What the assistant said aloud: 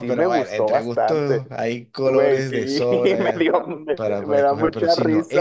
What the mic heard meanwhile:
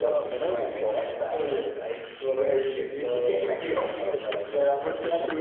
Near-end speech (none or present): present